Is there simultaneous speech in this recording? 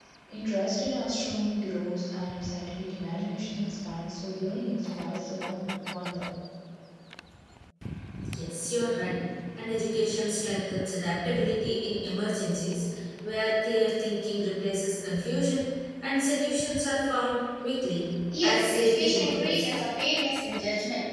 Yes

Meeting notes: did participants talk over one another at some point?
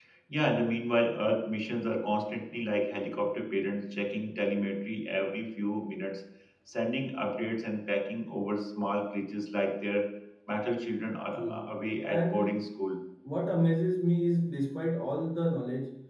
Yes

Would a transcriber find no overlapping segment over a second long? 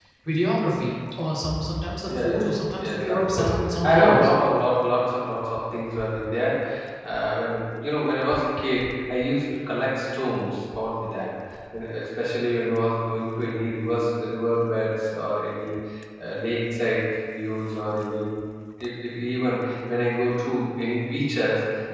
No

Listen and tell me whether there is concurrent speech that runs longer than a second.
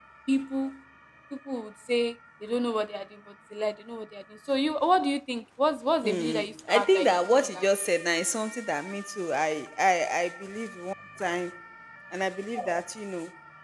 Yes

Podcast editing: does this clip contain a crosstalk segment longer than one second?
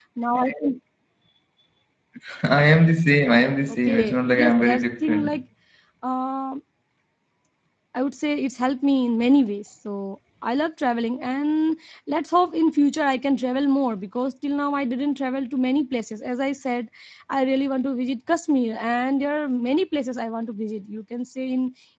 Yes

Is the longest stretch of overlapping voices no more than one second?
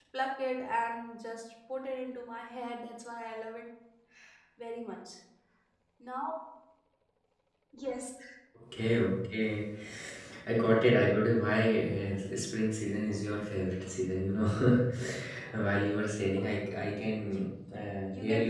Yes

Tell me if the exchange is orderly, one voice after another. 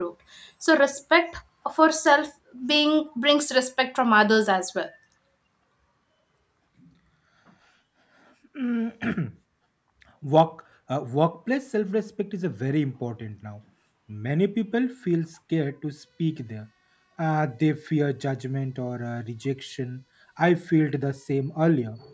Yes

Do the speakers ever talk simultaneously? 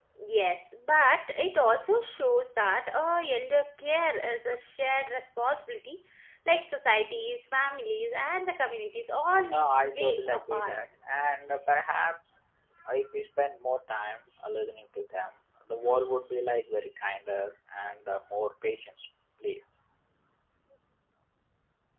Yes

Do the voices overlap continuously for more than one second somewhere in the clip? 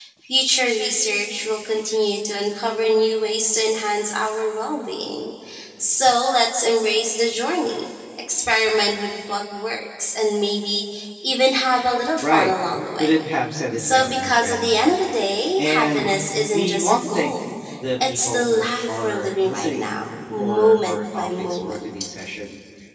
Yes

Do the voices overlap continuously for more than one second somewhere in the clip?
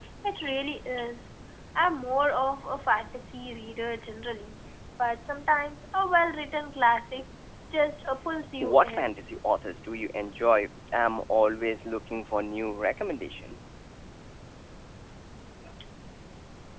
No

